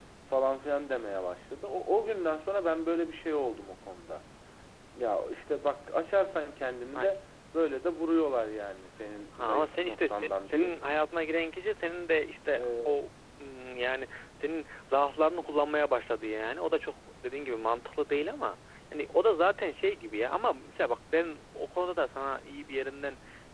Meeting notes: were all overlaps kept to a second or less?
No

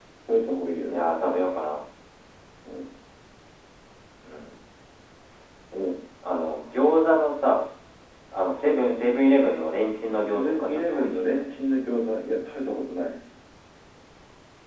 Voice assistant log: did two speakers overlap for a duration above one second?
Yes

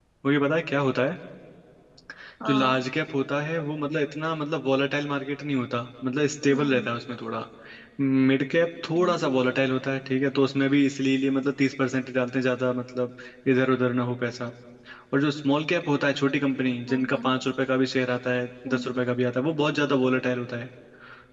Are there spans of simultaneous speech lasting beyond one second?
No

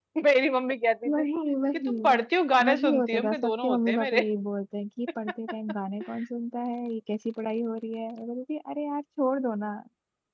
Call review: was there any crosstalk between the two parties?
Yes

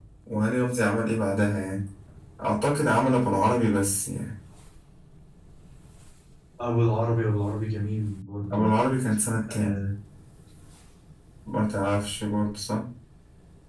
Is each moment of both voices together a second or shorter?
Yes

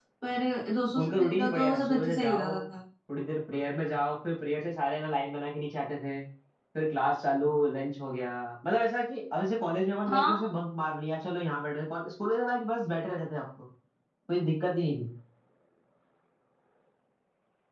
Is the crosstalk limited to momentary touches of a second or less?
No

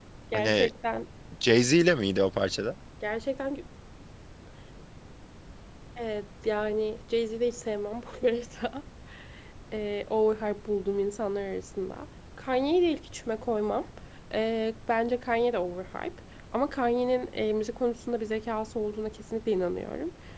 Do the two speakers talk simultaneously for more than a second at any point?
No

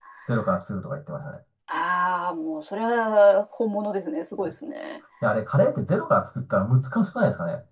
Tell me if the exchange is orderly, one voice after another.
Yes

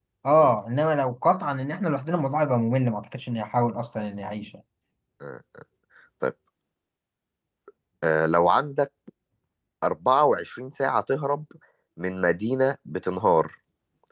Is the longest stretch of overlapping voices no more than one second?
Yes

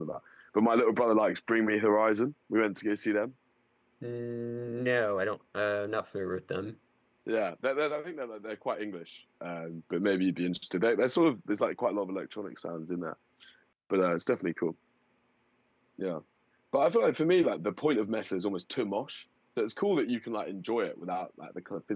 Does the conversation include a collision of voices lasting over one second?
No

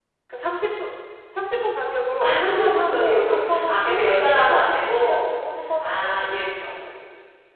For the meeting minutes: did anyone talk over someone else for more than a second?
Yes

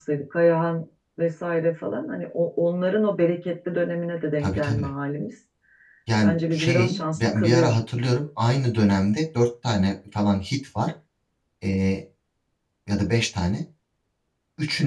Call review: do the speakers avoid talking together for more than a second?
No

